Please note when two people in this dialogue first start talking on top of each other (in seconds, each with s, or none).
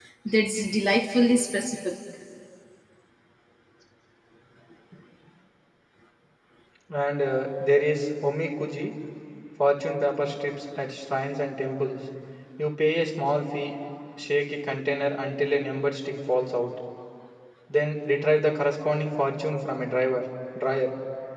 none